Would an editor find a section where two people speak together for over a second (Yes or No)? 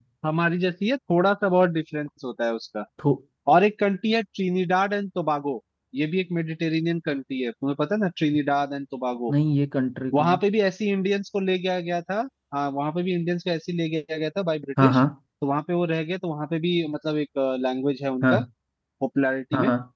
No